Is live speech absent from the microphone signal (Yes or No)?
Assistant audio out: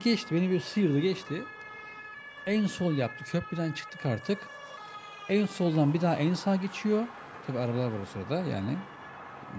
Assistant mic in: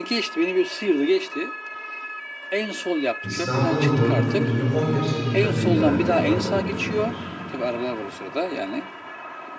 No